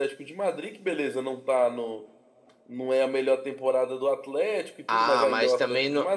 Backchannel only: No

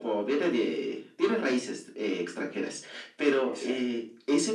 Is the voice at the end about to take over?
No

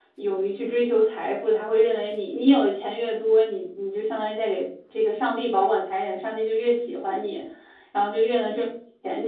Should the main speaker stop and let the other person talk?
No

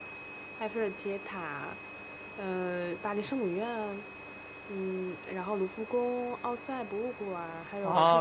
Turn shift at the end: Yes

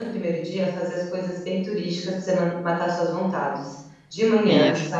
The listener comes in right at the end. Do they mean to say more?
No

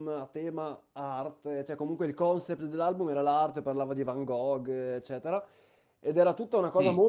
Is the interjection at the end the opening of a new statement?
No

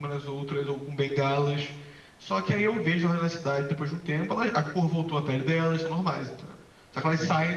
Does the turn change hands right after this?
No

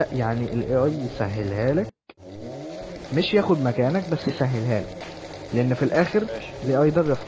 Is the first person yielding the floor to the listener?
No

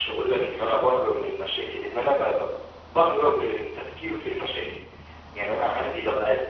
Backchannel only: Yes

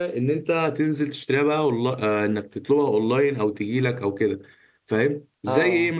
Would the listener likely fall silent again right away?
Yes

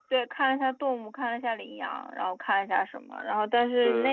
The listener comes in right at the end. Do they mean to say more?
No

